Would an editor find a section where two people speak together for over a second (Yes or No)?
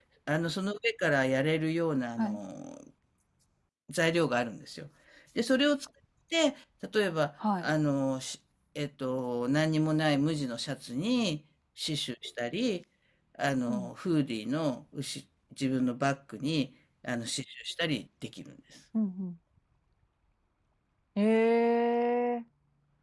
No